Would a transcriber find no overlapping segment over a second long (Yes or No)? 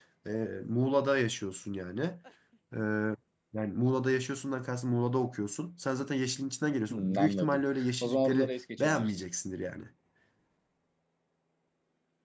No